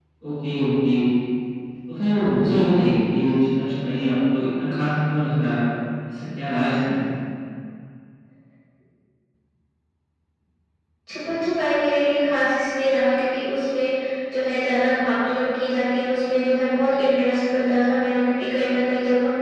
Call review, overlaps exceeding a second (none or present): none